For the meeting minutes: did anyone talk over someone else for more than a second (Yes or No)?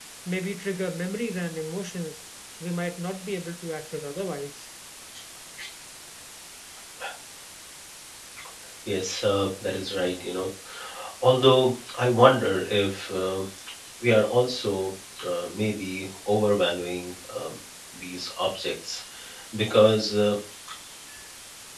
No